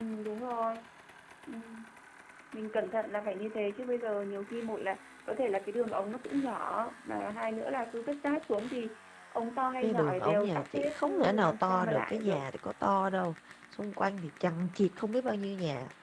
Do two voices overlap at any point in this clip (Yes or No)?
Yes